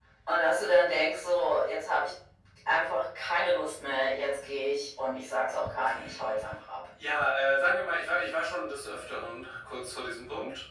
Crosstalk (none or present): none